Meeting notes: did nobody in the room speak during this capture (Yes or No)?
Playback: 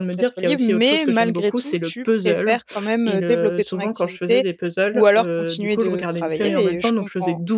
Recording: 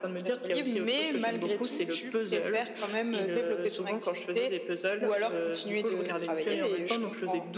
Yes